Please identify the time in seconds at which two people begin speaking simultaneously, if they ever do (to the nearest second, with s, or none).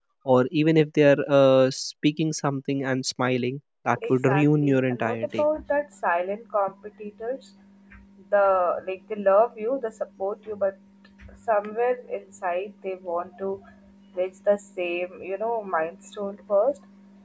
4 s